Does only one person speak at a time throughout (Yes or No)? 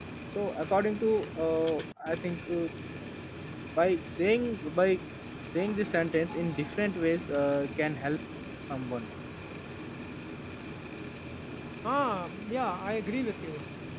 Yes